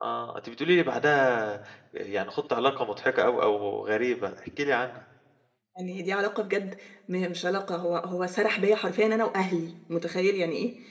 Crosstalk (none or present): none